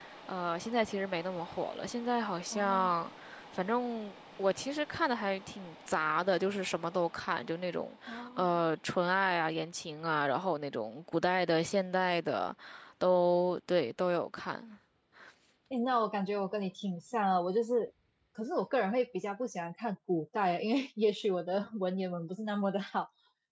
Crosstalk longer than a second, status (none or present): none